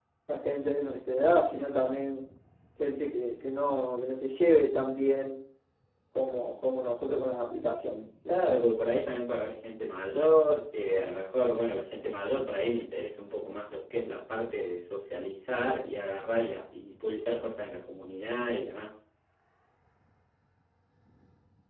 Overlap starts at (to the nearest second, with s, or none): none